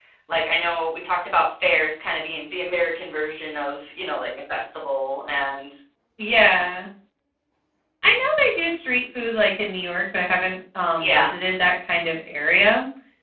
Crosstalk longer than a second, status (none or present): none